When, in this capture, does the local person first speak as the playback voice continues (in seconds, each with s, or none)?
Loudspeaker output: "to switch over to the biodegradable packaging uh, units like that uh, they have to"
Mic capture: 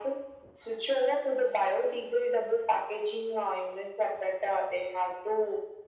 none